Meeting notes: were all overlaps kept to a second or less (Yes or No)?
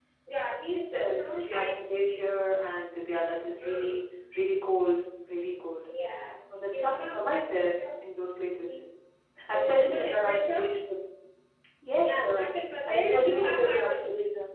No